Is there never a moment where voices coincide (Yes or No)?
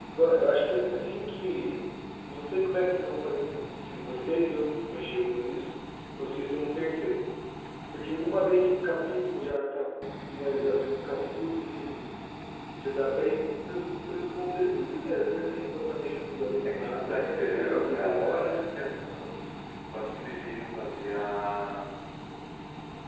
No